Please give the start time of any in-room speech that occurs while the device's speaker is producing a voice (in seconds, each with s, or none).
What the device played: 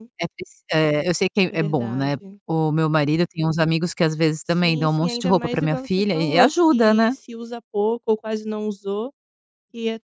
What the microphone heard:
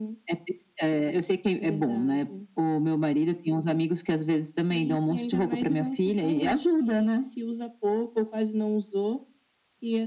none